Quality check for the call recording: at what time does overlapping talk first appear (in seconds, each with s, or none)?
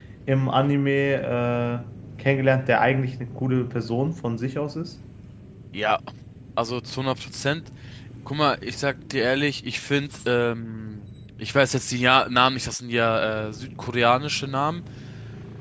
none